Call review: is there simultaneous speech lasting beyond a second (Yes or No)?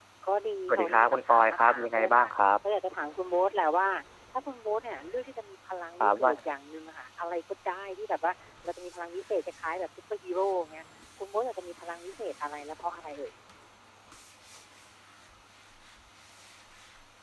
Yes